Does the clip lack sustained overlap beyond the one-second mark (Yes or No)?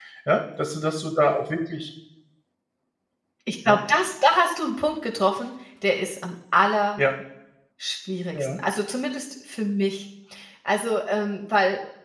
Yes